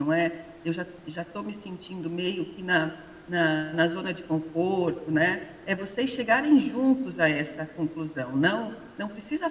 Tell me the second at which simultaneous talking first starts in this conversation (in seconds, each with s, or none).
none